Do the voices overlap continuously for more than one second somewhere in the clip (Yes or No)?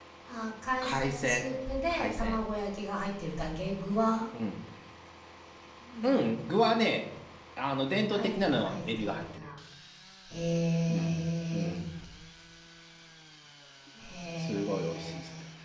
Yes